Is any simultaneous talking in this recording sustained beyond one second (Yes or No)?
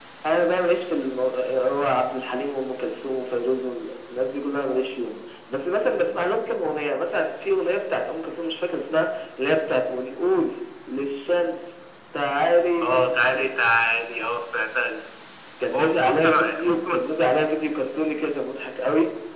Yes